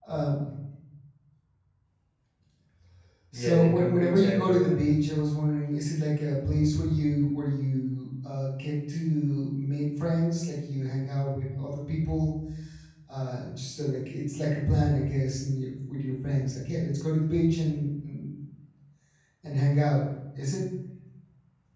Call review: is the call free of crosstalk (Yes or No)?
No